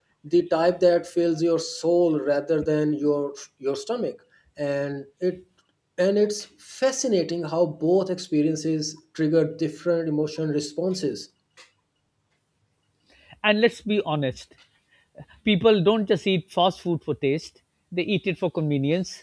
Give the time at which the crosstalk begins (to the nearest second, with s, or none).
none